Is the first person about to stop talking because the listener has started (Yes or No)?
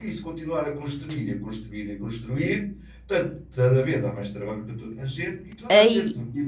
No